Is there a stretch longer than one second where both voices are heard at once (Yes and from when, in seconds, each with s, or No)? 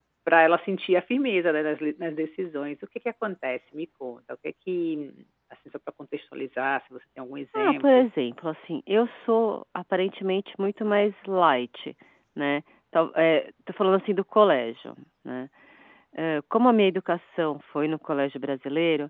No